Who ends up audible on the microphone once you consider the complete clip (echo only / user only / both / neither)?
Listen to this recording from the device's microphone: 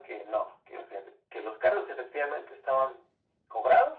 echo only